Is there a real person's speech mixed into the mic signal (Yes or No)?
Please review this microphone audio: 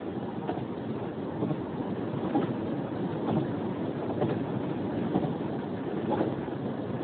No